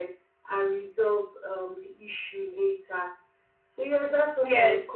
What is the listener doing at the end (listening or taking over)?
listening